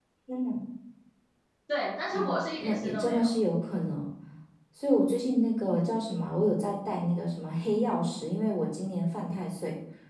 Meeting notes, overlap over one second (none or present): present